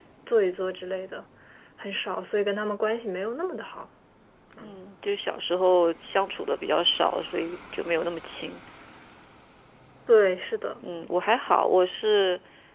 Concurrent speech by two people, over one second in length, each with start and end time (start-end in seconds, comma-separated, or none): none